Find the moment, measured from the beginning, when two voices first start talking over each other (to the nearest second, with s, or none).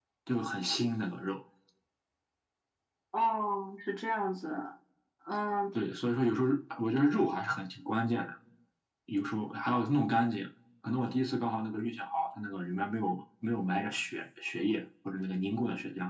none